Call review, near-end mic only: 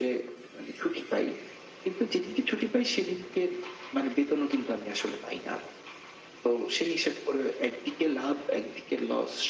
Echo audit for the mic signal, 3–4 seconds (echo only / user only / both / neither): echo only